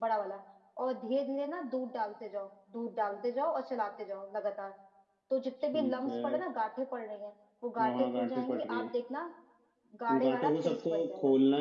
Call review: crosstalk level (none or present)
present